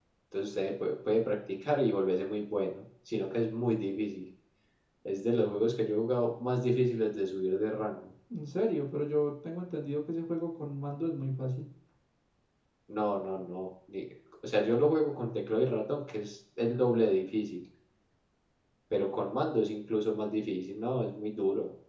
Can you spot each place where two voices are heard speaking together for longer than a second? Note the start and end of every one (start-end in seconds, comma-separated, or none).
none